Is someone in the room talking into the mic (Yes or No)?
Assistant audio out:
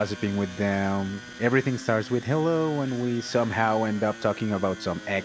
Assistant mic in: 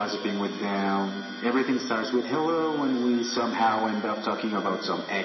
No